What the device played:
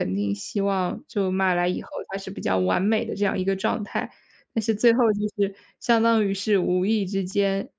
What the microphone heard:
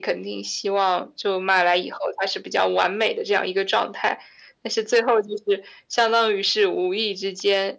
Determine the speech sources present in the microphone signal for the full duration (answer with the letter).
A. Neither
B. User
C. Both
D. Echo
D